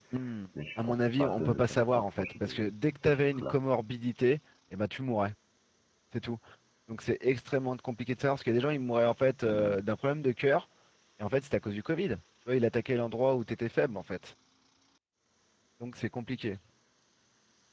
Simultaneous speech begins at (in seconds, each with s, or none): 0.8 s